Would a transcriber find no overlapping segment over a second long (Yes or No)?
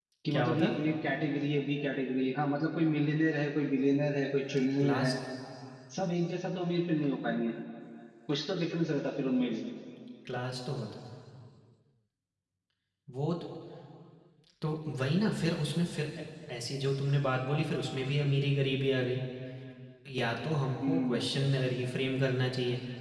Yes